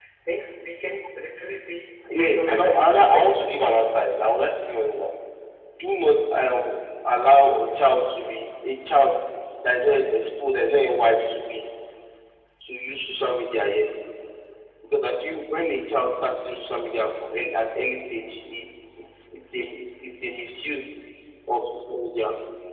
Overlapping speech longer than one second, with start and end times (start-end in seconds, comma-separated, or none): 2.1-3.4